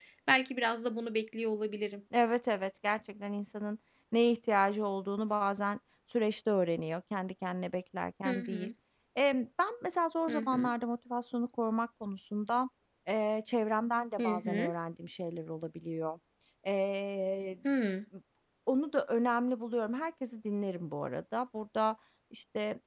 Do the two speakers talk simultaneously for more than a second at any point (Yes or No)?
No